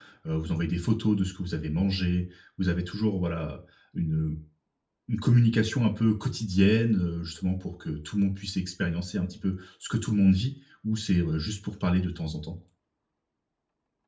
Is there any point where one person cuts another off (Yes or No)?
No